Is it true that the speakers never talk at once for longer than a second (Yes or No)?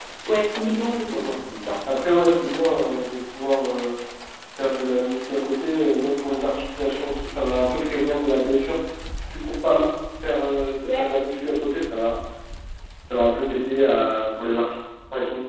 Yes